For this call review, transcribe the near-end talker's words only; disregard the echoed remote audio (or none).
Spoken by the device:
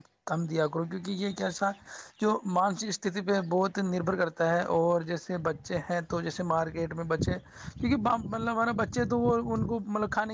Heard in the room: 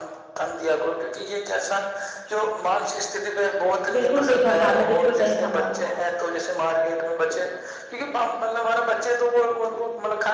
بالکل صحیح فرما رہے ہیں بالکل صحیح فرما رہے ہیں آپ